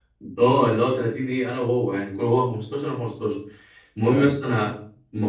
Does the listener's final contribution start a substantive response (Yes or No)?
No